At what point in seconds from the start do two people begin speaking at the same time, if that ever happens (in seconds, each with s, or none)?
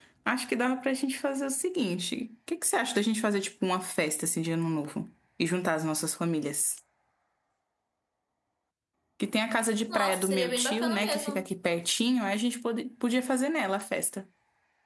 9.9 s